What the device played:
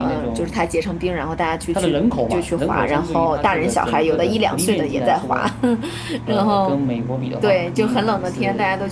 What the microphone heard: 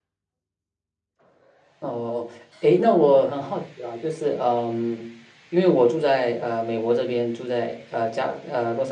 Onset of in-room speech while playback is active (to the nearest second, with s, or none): 2 s